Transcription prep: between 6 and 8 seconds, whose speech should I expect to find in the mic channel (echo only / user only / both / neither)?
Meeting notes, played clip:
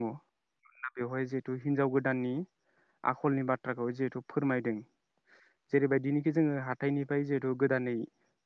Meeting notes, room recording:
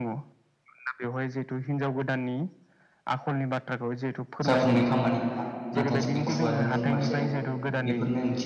both